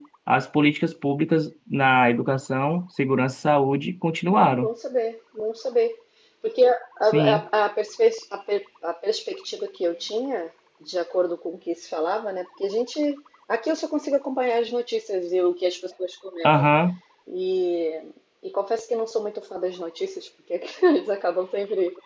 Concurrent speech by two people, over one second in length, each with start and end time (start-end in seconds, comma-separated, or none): none